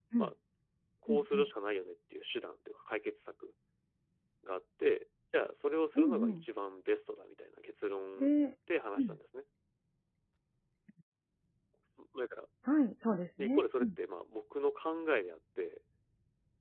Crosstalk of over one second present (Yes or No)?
No